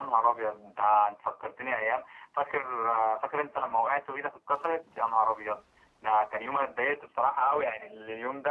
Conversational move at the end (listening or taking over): listening